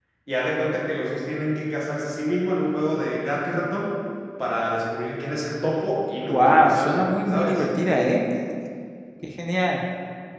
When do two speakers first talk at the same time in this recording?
6 s

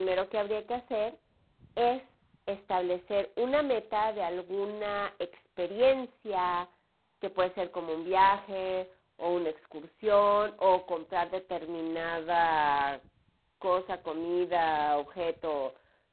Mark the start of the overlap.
none

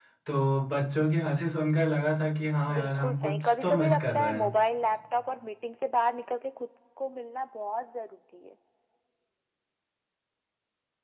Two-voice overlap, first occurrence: 3 s

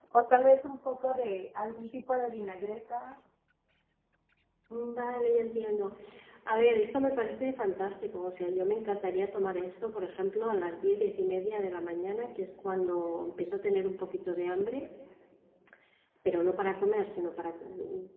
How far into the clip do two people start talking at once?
none

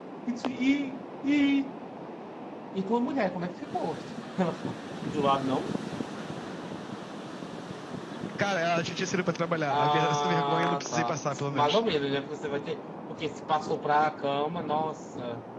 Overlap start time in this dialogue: 10 s

